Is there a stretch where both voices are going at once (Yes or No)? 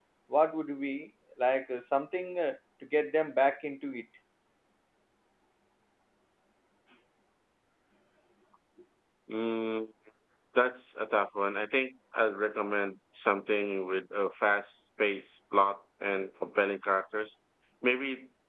No